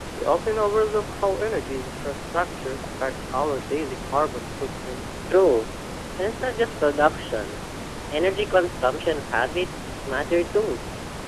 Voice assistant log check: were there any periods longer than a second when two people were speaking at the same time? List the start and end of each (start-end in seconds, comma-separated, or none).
none